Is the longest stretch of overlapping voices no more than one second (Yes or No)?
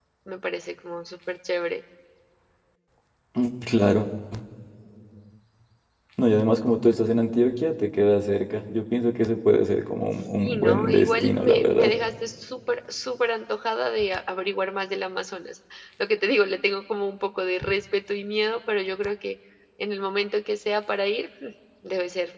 No